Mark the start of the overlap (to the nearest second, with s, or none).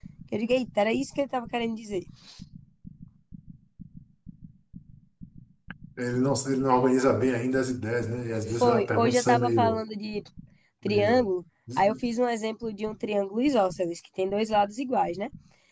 8 s